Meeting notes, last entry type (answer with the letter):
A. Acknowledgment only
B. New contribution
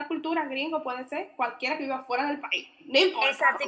B